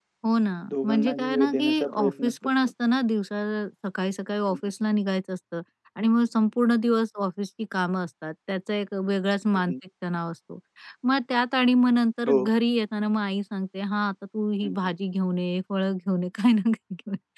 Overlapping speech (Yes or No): Yes